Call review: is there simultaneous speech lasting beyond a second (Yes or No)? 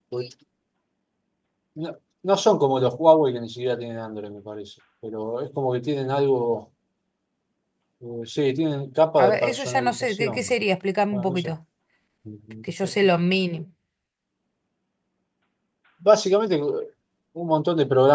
Yes